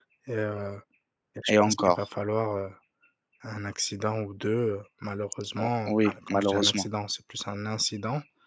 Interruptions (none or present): present